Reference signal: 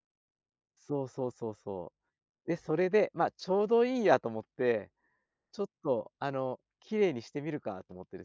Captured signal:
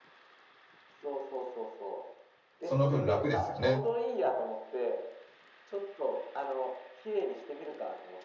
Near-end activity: present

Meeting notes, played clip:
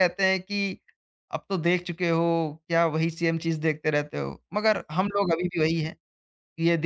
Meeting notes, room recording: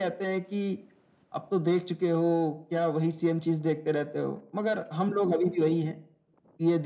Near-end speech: none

